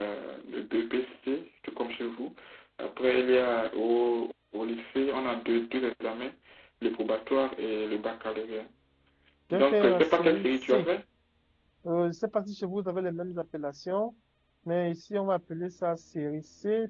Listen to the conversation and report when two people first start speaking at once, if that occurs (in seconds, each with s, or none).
9.5 s